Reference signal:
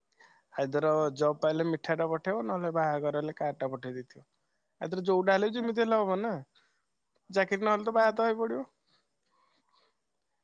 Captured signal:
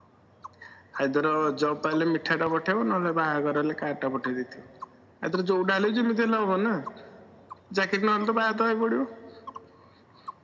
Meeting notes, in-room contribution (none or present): none